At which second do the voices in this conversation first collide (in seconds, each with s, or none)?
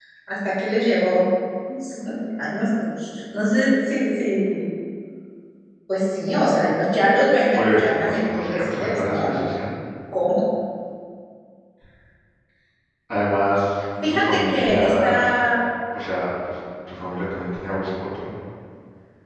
7.5 s